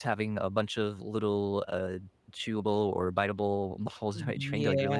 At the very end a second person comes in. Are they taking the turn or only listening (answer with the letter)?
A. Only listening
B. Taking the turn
B